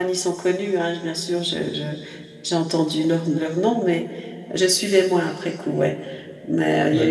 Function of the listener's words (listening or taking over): listening